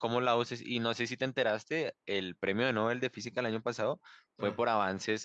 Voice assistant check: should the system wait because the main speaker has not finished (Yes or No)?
Yes